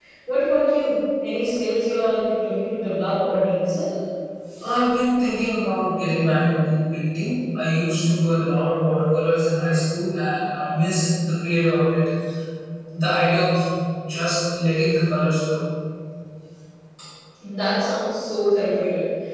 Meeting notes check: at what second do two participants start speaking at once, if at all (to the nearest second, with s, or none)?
none